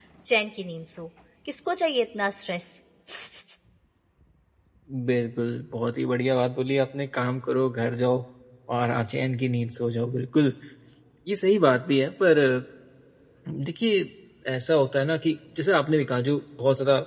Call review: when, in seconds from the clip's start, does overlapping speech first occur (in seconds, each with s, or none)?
none